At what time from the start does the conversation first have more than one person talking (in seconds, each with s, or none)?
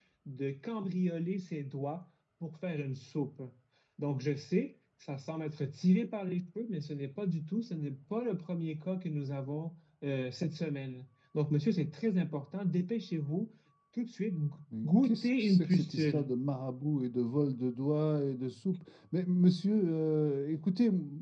14.8 s